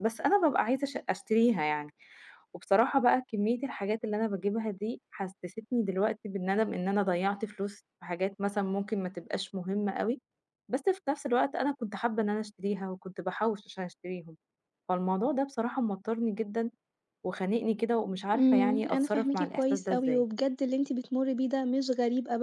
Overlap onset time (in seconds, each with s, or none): 18.3 s